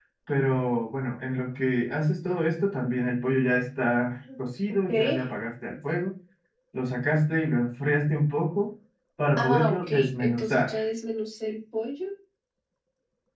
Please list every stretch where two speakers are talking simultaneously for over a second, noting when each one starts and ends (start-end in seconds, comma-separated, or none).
9.4-10.8